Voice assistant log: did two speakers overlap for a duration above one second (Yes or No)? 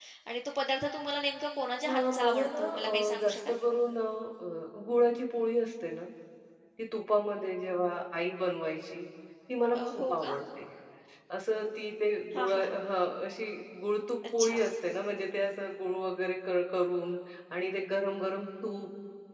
Yes